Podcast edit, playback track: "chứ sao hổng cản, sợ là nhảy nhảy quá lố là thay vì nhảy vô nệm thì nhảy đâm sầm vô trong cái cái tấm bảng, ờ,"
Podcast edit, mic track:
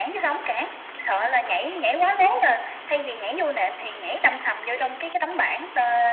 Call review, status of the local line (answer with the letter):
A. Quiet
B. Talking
A